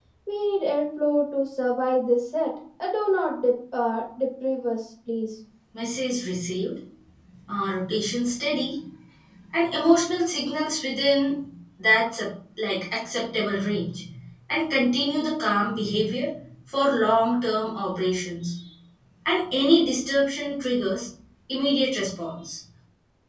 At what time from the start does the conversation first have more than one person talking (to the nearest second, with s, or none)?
none